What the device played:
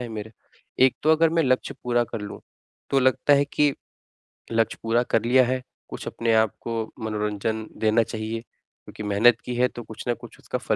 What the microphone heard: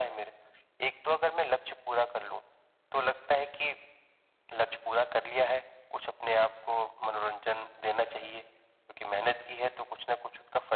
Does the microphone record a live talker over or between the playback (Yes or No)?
No